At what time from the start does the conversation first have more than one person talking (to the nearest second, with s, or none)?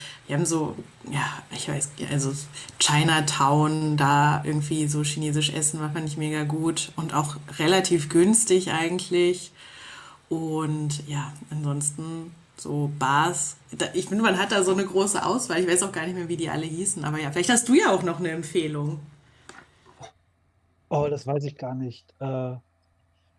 none